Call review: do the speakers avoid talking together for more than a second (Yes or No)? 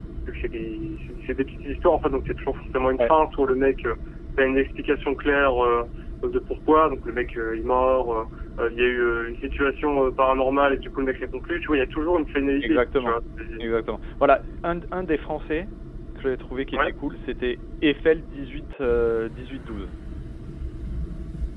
Yes